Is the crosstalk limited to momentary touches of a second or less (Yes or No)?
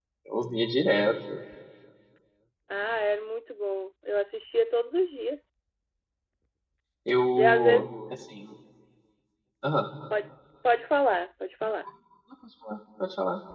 Yes